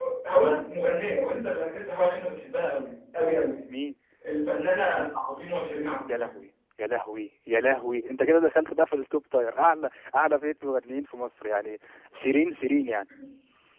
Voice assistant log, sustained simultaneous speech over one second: none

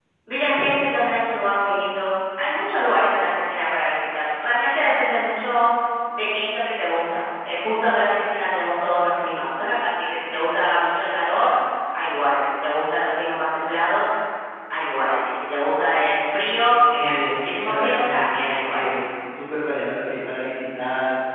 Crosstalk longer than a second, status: present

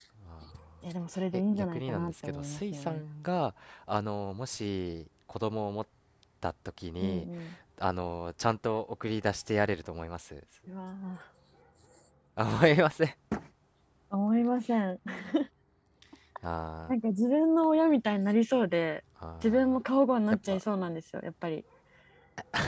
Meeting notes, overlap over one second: present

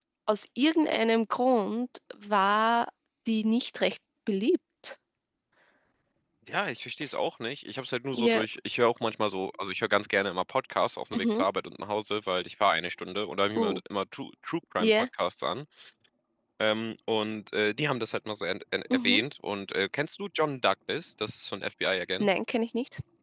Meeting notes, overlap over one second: none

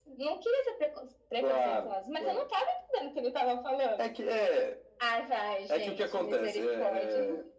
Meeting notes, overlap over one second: present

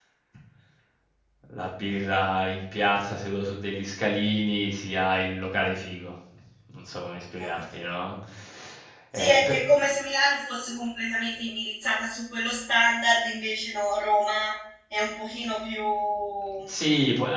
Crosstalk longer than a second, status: none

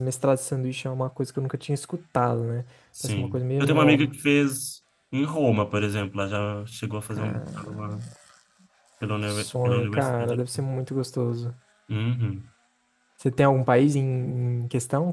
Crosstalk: present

